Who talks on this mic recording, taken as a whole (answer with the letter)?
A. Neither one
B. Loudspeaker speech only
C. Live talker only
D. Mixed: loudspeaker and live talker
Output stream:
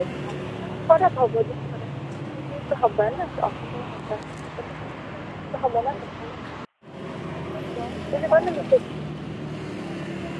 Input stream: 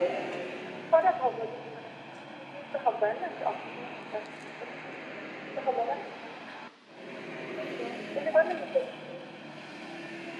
B